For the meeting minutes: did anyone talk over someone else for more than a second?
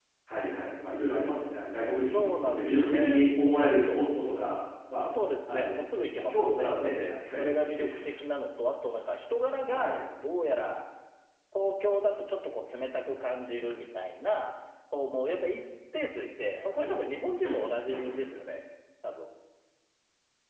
Yes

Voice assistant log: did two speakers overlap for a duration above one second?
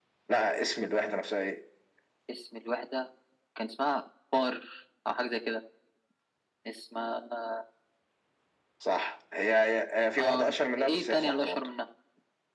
Yes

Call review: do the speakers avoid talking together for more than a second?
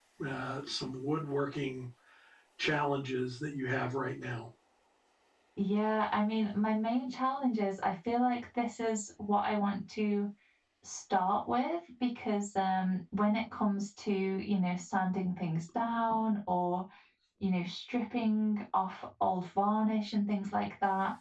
Yes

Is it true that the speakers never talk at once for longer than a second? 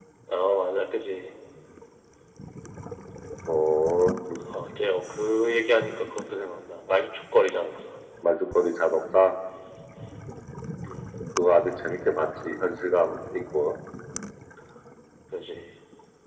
Yes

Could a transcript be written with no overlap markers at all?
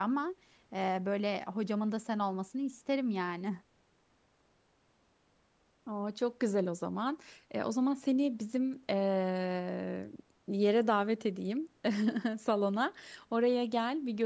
Yes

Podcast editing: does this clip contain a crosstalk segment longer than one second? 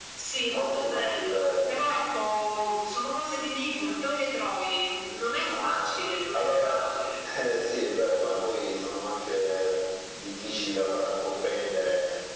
Yes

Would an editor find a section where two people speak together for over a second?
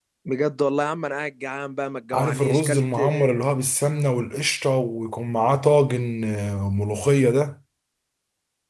Yes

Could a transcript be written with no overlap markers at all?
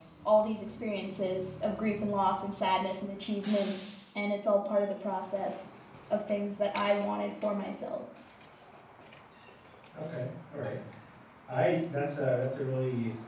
Yes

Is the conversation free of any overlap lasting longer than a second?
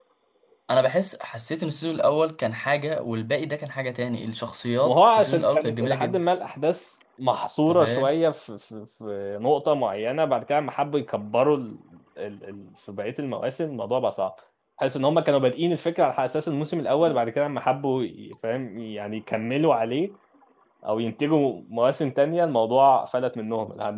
No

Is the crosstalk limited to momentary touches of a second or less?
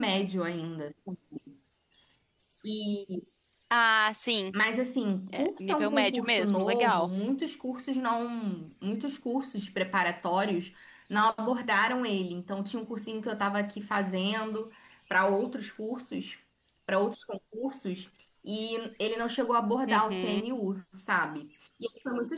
No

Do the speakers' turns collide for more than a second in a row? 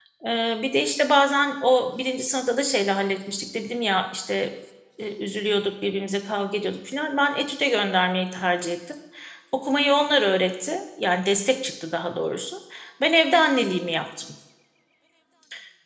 No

